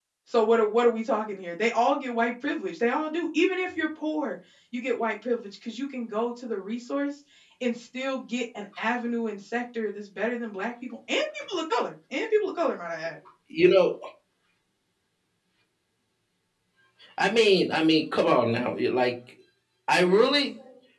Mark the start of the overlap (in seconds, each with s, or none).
none